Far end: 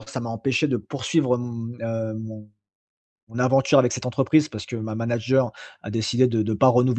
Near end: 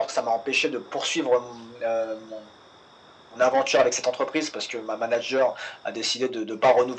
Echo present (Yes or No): Yes